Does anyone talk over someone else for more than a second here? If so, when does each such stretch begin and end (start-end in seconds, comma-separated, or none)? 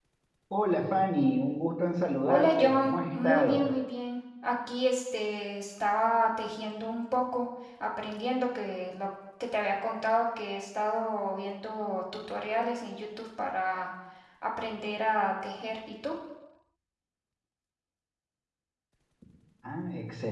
2.3-3.6